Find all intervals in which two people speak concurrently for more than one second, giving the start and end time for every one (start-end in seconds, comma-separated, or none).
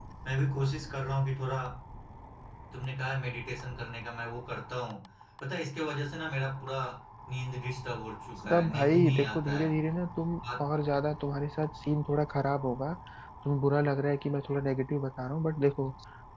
8.5-9.7